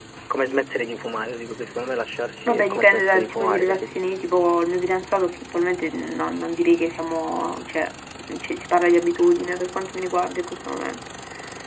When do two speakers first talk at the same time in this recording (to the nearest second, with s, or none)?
2 s